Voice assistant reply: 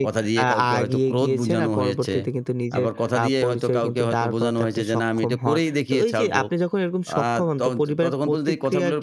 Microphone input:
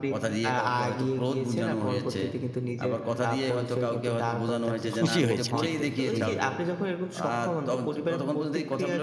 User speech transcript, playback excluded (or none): খুশি হয়েছে ঠিক তাই হুম, হুম।